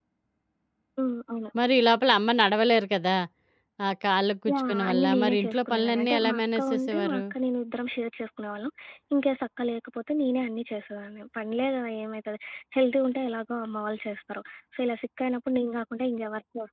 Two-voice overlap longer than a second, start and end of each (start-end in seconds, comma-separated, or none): 4.5-7.2